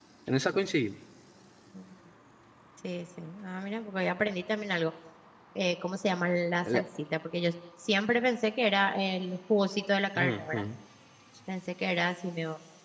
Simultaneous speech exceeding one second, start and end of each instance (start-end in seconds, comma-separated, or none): none